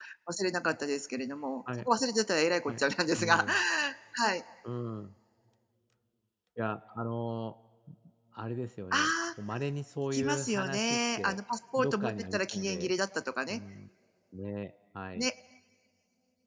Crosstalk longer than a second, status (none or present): present